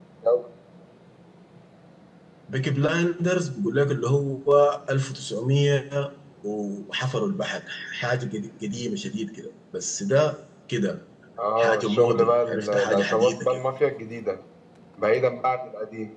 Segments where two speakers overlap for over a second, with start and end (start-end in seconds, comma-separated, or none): 11.6-13.6